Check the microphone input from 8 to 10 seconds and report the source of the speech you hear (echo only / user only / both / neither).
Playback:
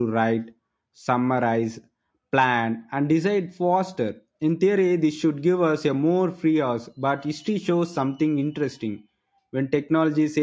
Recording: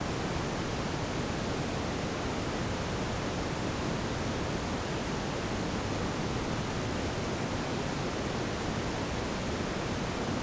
neither